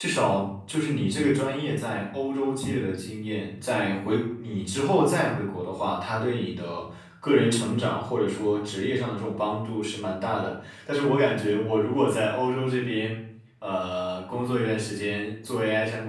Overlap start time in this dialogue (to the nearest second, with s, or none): none